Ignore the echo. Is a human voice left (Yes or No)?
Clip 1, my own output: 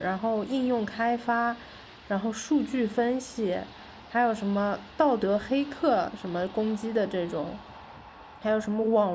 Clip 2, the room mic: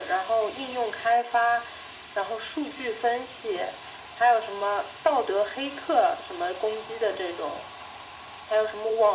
No